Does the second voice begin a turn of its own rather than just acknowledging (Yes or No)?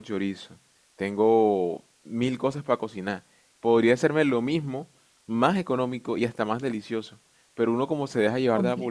No